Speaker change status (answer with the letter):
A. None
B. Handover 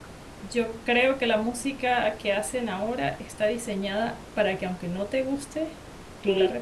B